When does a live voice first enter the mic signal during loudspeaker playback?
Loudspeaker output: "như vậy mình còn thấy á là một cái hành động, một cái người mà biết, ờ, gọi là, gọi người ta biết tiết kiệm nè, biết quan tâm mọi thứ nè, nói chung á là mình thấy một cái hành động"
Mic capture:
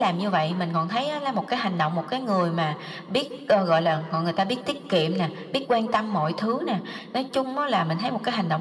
none

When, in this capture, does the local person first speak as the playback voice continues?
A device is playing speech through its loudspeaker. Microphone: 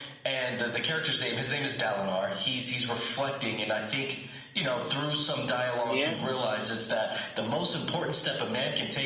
5.8 s

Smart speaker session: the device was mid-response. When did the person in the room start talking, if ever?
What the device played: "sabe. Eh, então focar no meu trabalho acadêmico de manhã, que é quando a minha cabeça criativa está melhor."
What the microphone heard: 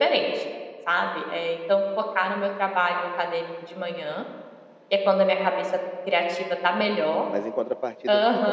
6.8 s

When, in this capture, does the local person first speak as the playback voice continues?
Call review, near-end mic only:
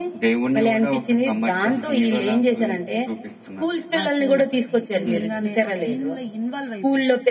4.0 s

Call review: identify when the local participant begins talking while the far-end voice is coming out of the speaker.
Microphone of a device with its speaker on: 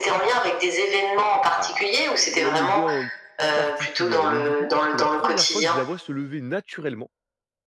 1.5 s

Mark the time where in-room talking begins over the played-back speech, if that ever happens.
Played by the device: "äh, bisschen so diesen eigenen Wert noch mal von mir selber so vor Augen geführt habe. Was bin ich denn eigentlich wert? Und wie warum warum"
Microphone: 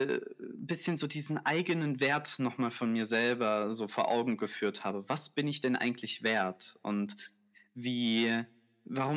none

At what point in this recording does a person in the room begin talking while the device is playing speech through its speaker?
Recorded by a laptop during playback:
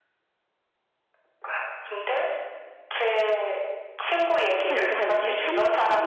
4.6 s

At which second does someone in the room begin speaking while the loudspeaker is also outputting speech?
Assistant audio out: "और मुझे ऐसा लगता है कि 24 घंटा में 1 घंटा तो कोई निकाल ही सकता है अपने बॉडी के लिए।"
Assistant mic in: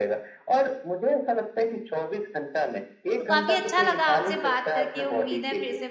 3.2 s

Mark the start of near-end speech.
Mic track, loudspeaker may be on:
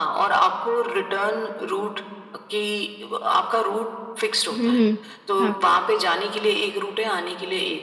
4.6 s

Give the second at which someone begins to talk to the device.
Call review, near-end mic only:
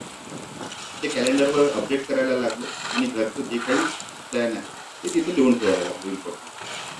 none

